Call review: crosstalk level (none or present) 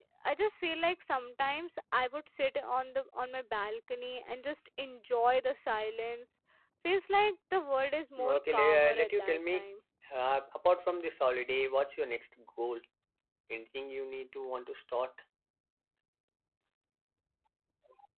present